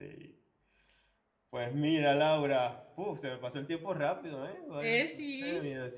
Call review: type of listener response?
listening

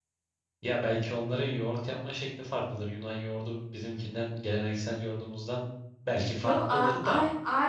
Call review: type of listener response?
taking over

